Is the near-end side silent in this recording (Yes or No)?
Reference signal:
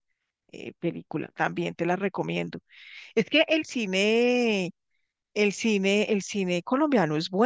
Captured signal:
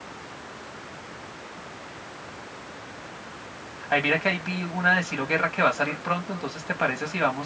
No